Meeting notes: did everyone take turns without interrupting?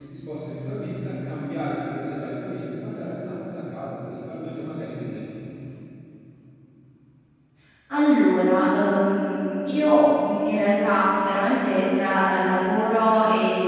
Yes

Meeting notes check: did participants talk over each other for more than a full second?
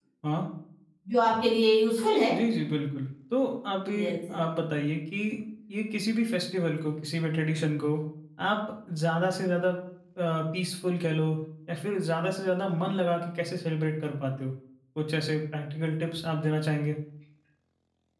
No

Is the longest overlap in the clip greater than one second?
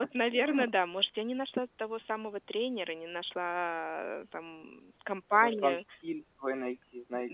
No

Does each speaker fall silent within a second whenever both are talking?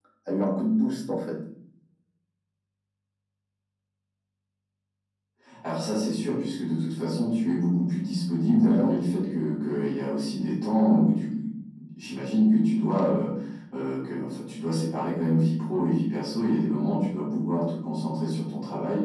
Yes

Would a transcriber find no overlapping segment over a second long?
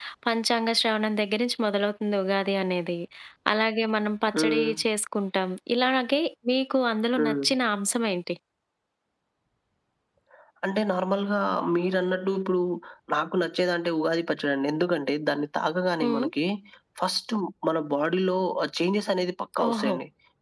Yes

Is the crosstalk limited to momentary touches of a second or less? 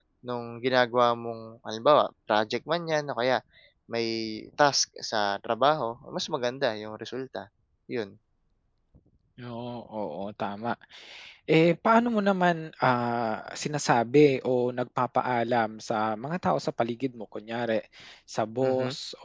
Yes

